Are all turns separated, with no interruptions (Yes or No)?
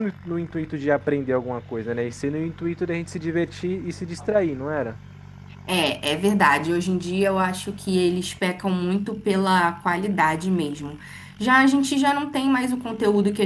Yes